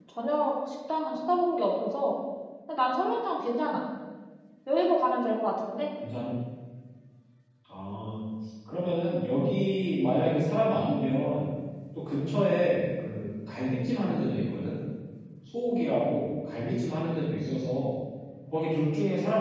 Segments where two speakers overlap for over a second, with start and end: none

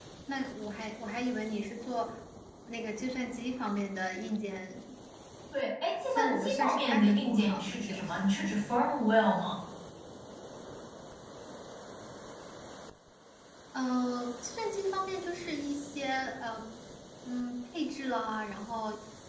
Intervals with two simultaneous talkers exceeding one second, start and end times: 6.2-8.0

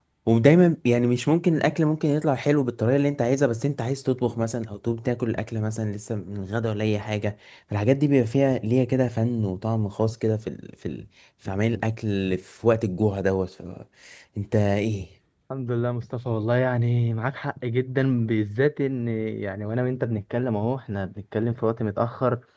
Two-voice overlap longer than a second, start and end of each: none

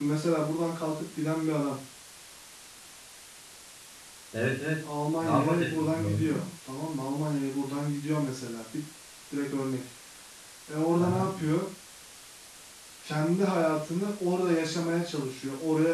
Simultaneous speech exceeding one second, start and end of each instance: 5.2-6.4

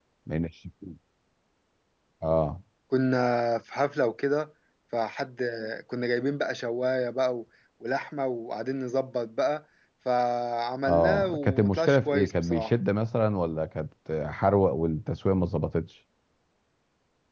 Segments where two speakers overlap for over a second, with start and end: 10.8-12.7

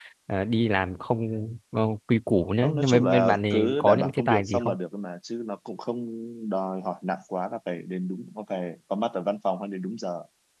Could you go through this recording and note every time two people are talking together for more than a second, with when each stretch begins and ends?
2.6-4.8

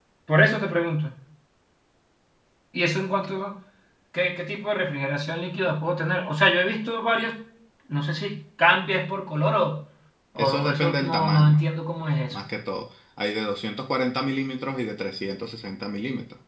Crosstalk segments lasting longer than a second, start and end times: 10.4-11.6

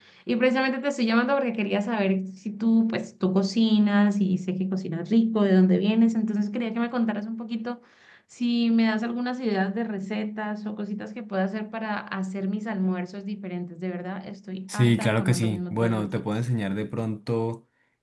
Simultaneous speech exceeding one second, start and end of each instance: 14.7-16.3

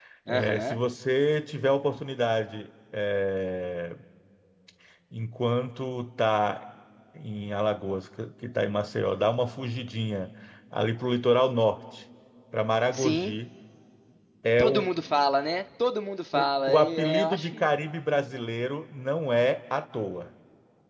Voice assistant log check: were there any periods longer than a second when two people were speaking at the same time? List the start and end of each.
16.3-17.7

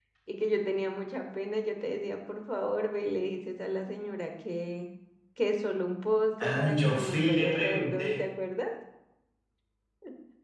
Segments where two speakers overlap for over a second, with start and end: 6.4-8.2

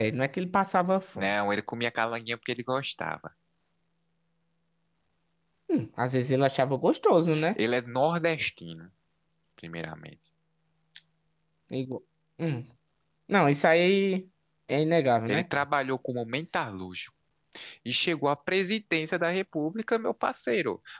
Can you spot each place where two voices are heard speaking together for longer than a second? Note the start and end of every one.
none

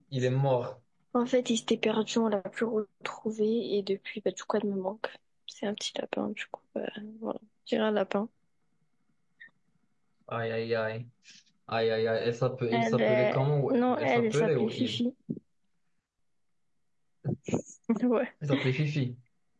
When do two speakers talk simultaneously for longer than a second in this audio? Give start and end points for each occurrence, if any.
12.7-15.0

